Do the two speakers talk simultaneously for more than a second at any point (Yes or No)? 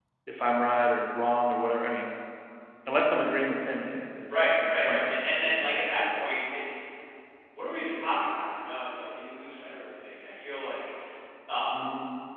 Yes